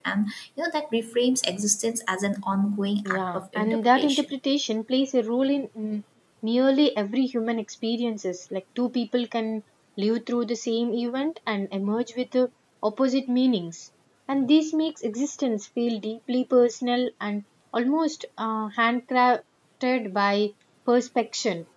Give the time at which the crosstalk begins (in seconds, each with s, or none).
3.0 s